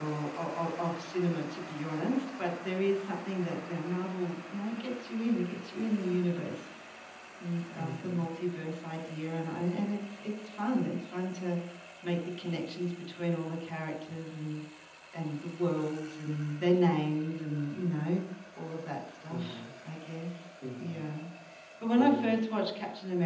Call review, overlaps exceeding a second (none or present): none